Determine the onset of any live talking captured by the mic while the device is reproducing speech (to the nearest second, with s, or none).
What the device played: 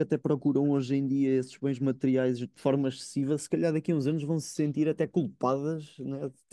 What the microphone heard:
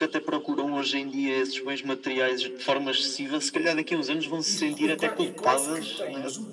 4 s